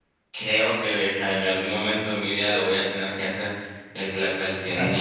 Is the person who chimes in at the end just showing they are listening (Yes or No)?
Yes